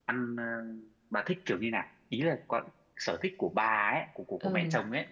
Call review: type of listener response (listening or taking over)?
taking over